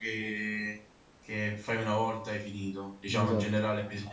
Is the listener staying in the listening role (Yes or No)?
Yes